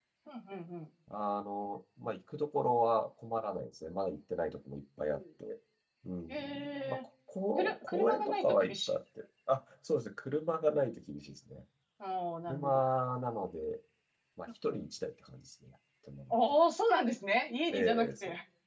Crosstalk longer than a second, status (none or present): present